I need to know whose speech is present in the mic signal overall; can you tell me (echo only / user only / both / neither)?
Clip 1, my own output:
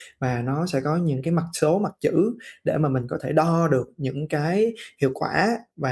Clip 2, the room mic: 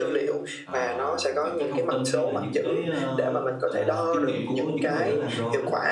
both